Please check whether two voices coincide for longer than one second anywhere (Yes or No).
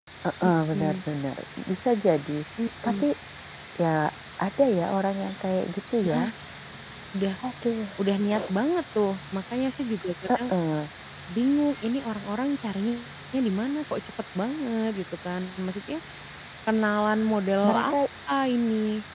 No